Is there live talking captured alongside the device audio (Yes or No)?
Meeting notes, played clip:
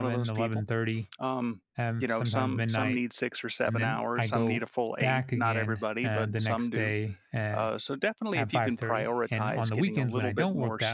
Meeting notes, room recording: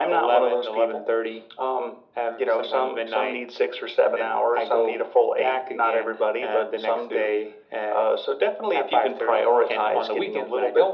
No